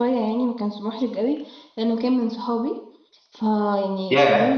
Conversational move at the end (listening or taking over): taking over